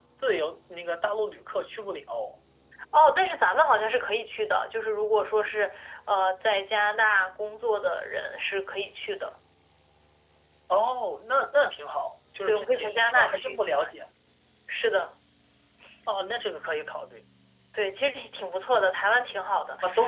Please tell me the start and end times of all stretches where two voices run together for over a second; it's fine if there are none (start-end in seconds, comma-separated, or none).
12.5-14.0